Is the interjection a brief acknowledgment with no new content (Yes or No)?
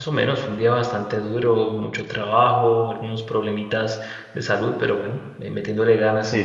No